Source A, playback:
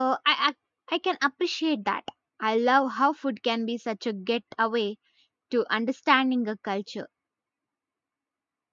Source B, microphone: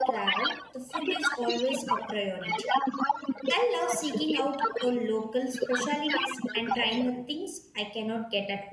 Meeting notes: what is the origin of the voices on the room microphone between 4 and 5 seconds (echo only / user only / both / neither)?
both